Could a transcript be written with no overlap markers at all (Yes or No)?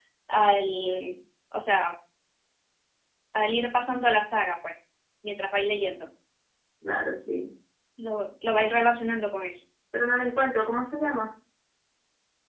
Yes